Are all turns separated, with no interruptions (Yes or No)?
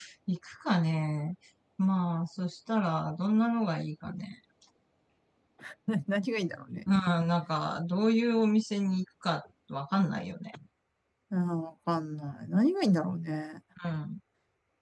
Yes